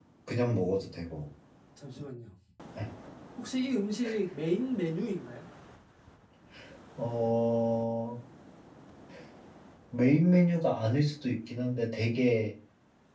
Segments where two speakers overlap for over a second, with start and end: none

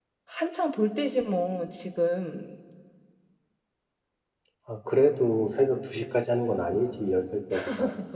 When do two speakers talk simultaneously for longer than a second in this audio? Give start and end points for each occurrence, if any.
none

